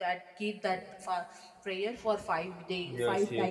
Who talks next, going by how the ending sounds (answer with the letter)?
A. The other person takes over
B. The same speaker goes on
A